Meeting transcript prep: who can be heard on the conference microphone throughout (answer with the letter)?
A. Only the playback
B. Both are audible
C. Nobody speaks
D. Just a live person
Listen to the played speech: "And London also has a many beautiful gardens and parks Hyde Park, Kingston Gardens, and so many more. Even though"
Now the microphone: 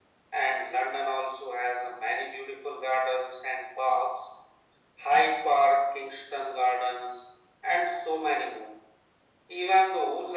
A